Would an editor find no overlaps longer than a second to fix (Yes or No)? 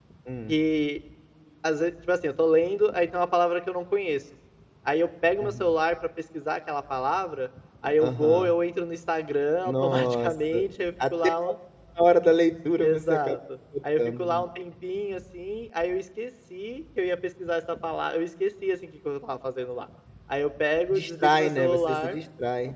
No